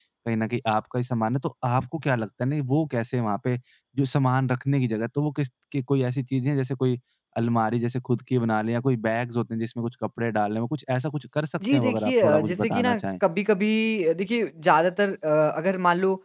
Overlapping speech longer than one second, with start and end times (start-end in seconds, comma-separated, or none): 11.7-13.0